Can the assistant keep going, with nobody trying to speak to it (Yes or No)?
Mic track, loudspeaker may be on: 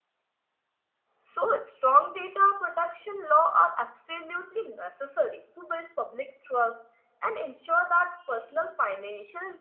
No